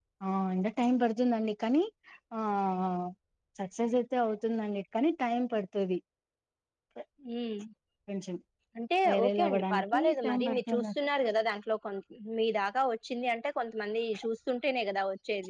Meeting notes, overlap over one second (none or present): present